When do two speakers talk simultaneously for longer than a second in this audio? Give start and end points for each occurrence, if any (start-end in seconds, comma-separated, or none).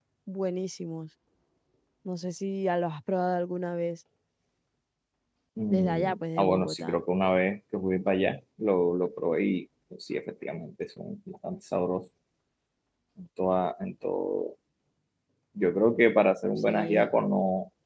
5.7-7.0